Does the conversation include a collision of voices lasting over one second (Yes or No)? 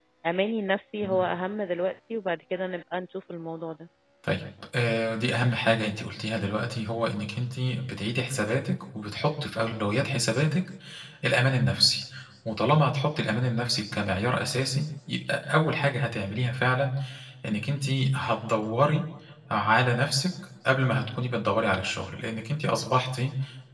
No